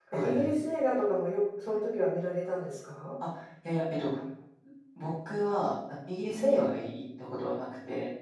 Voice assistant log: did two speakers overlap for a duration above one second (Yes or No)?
No